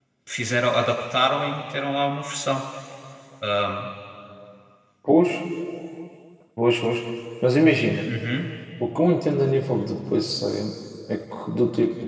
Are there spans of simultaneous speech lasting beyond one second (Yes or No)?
No